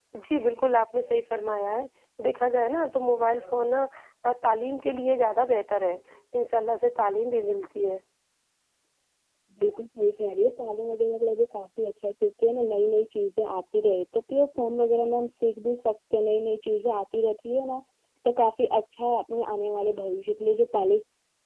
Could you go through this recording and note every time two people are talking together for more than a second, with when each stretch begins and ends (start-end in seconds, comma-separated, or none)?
none